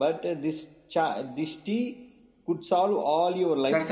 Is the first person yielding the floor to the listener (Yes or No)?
Yes